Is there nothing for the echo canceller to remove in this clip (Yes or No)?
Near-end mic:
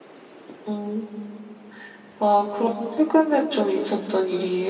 Yes